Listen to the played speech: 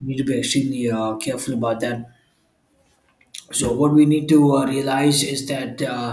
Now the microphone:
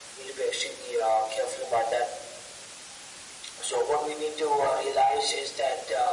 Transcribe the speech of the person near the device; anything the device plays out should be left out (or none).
none